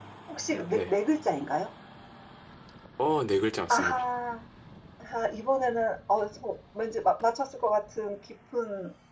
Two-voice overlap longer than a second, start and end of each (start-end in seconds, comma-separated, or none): none